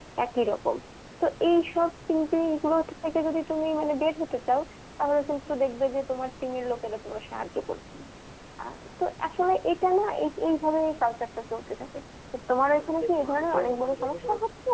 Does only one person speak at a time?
No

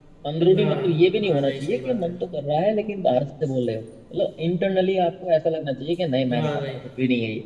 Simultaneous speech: Yes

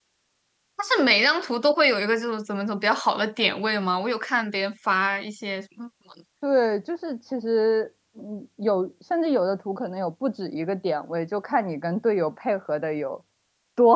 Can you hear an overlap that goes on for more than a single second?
No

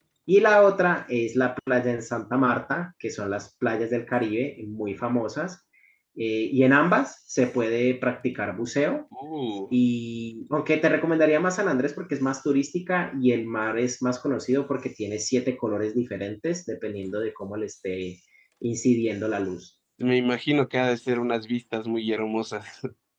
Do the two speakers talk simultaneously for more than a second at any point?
No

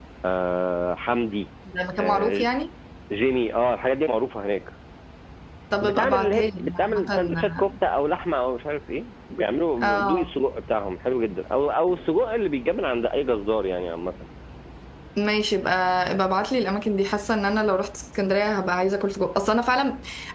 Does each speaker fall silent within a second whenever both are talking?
No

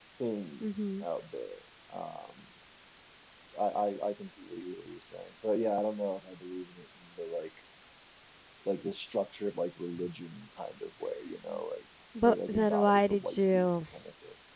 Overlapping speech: Yes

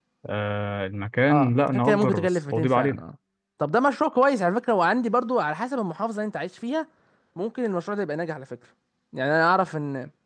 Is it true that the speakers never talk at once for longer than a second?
No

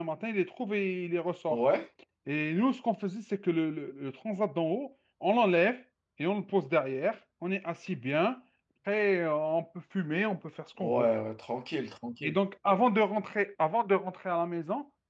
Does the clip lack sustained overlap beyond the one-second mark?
Yes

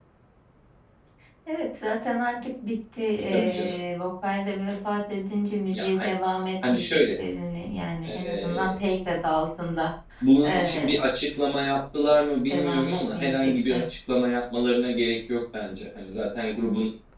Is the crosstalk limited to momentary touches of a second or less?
No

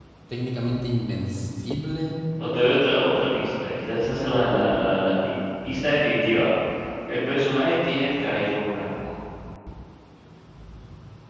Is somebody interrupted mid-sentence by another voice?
No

